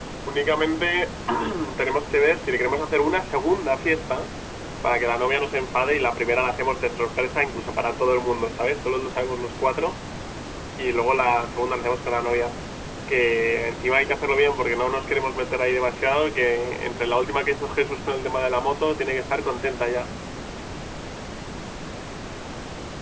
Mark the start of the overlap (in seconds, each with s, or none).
none